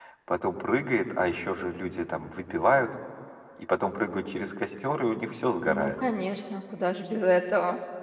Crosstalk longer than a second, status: none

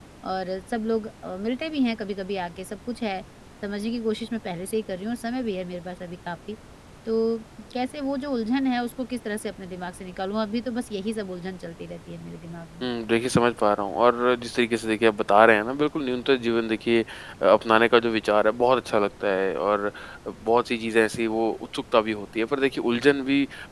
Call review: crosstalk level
none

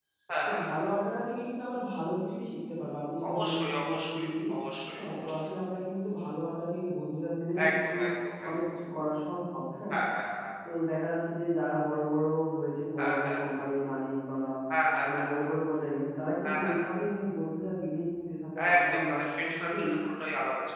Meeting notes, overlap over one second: present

